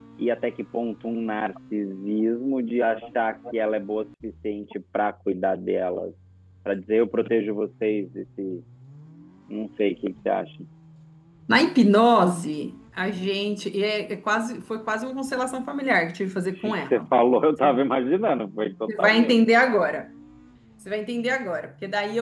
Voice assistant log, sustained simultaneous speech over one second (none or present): none